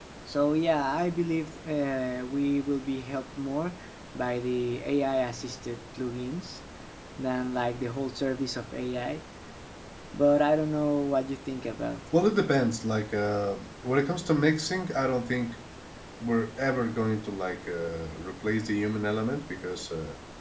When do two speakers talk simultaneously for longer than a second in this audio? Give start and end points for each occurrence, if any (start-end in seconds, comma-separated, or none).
none